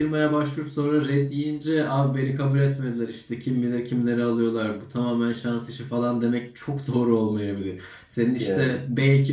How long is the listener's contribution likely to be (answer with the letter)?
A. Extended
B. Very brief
B